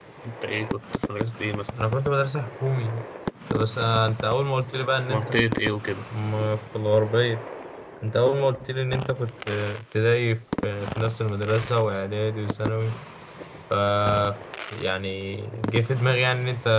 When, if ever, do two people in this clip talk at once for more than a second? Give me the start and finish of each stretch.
none

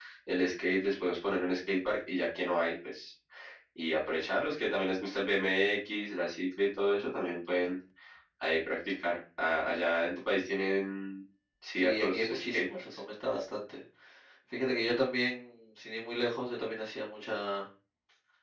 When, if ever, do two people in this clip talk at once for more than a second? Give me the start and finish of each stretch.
11.8-13.0

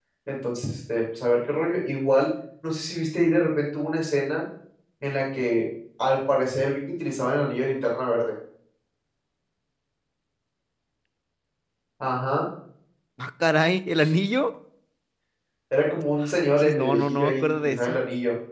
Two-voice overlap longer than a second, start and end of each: 16.4-18.0

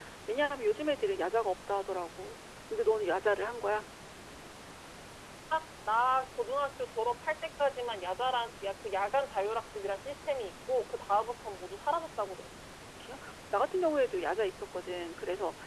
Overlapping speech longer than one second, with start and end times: none

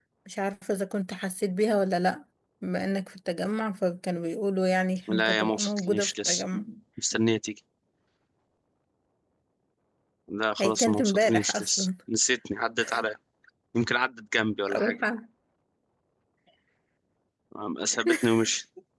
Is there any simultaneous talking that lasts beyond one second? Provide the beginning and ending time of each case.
5.1-6.4, 10.6-11.9

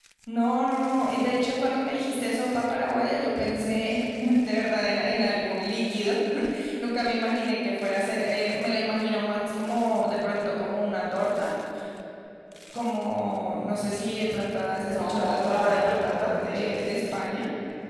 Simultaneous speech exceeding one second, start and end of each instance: 14.9-16.7

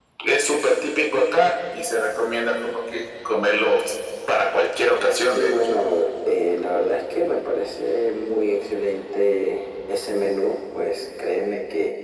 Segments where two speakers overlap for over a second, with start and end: none

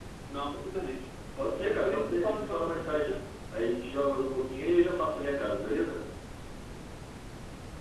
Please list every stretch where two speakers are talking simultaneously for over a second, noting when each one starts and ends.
1.6-3.1

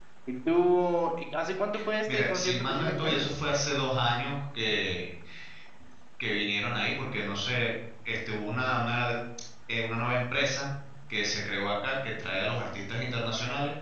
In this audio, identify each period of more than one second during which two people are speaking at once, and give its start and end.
2.1-3.4

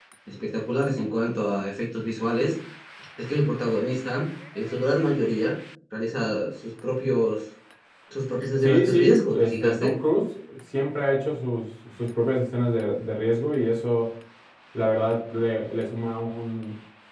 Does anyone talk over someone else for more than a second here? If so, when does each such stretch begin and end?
8.6-9.9

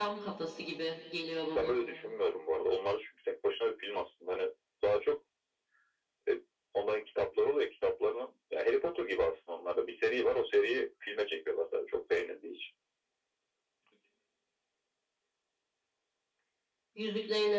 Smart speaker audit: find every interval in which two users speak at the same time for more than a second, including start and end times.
none

